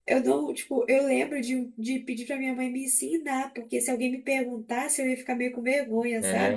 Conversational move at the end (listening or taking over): taking over